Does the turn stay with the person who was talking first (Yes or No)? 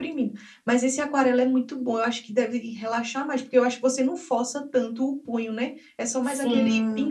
No